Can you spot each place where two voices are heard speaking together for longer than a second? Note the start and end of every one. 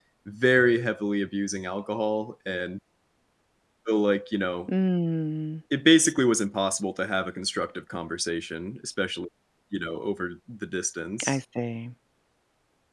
none

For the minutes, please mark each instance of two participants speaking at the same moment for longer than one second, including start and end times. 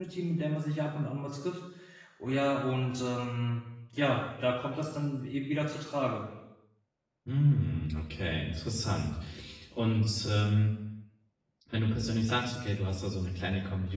none

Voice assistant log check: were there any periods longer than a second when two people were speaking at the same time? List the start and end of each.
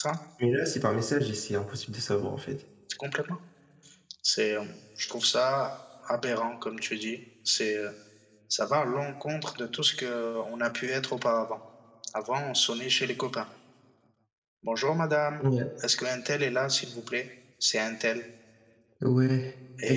none

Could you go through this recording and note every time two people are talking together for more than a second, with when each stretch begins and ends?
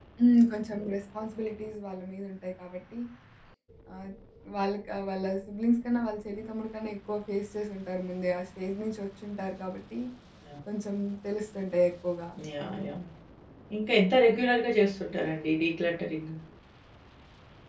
none

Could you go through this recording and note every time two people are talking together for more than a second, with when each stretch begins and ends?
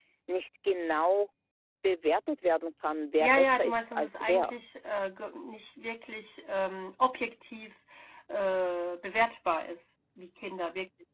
3.2-4.5

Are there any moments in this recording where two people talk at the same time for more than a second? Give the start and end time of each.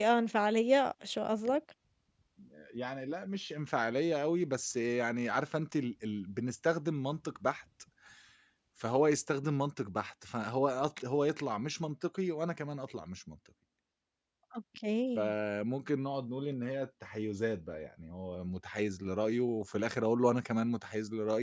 none

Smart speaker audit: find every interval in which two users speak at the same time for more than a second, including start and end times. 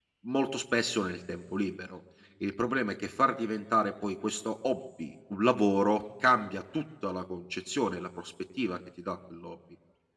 none

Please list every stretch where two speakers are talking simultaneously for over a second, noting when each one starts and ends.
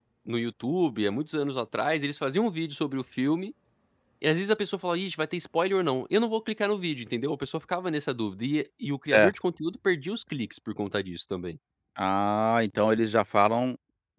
none

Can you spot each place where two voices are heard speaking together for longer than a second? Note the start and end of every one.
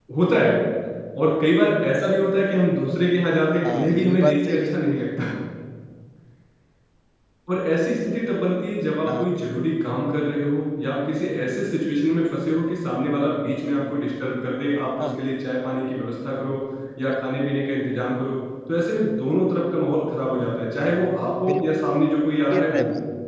3.6-4.8

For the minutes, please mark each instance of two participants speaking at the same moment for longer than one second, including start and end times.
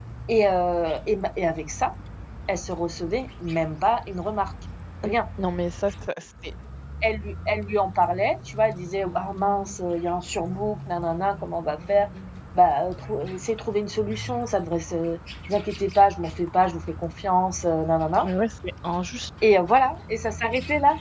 none

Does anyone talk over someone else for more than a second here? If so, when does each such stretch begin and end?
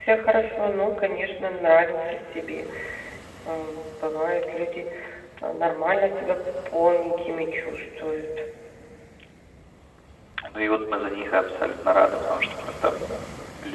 none

